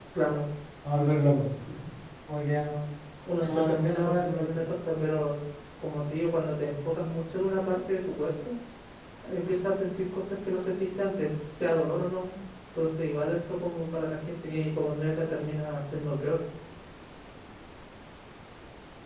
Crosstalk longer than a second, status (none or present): present